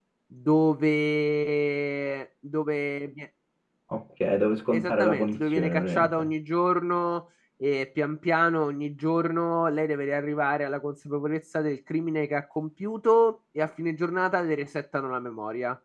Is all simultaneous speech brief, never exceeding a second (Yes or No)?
No